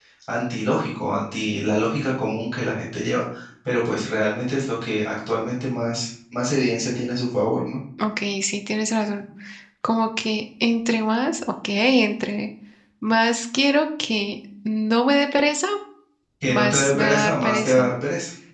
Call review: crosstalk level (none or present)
present